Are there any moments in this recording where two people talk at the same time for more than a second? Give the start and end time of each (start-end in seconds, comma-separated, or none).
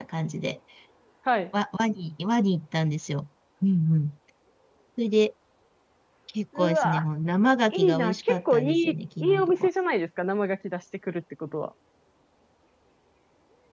7.7-8.9